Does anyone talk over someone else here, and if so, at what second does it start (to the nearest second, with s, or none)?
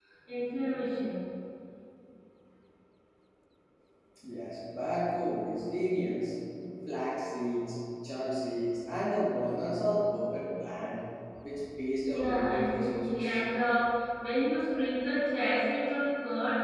12 s